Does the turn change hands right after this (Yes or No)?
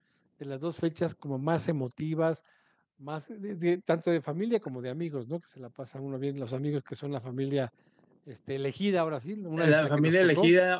Yes